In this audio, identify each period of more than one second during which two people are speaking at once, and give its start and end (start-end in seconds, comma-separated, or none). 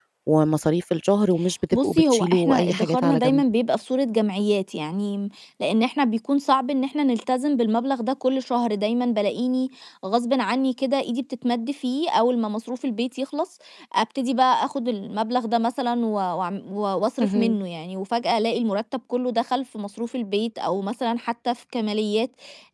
1.7-3.4